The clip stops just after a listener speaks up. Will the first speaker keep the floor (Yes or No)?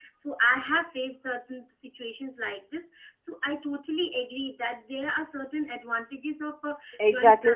No